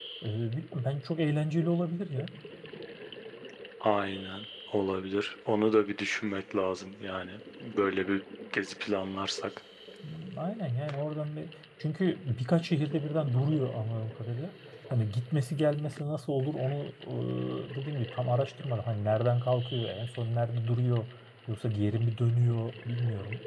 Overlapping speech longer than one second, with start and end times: none

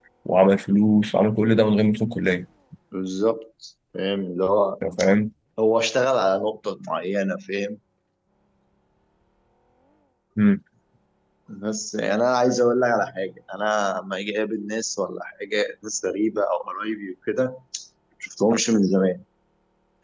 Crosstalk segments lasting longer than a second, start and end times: none

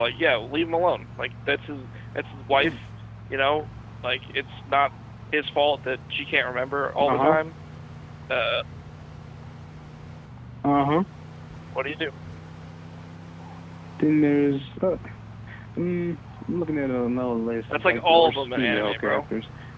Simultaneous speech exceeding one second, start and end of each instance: 17.7-19.2

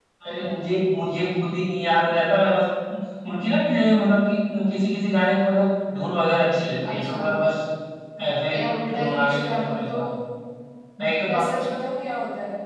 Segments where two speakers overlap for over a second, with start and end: 8.5-10.0

